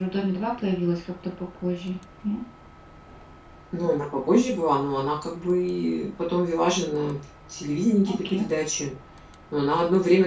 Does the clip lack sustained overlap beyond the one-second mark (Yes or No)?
Yes